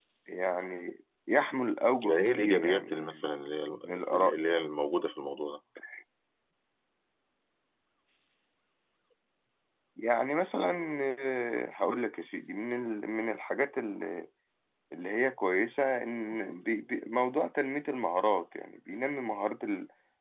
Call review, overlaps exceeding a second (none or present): present